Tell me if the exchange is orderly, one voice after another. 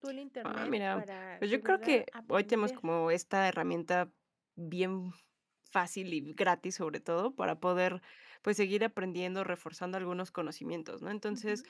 No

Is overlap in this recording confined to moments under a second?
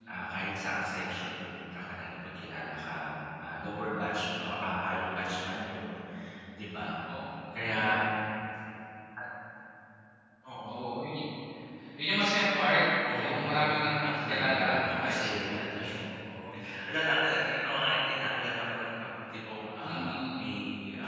No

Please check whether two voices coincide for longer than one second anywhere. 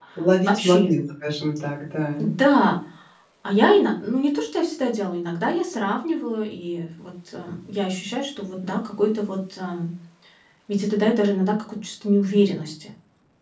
No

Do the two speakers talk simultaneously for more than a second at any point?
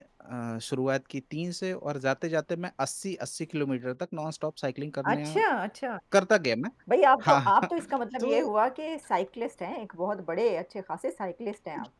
No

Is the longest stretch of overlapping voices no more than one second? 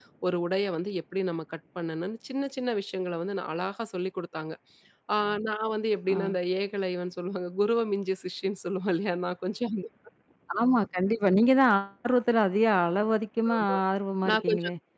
Yes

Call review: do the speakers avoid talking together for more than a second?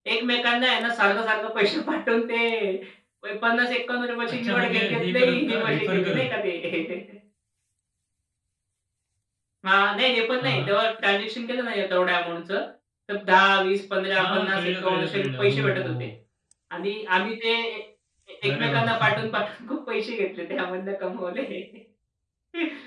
No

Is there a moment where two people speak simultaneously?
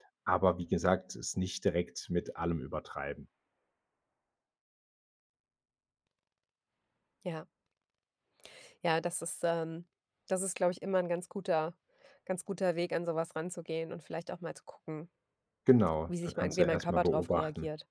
Yes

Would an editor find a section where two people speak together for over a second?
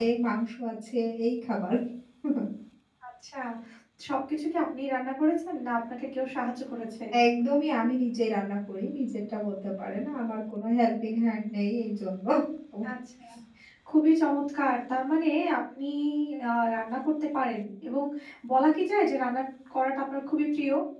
No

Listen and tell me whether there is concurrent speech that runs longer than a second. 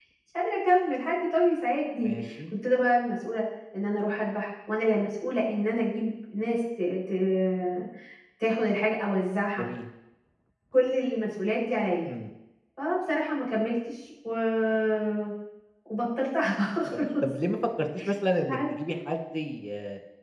No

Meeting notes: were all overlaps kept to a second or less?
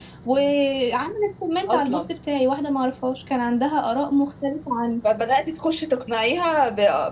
Yes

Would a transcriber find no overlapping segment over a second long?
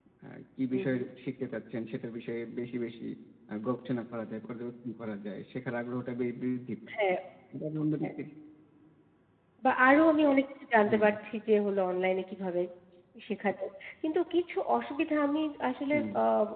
Yes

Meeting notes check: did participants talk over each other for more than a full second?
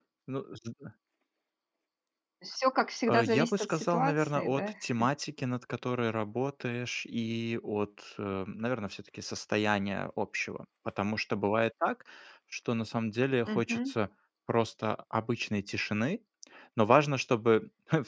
Yes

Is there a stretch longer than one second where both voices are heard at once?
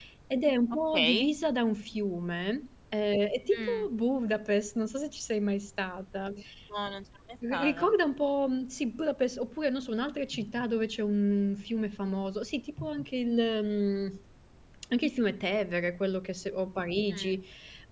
No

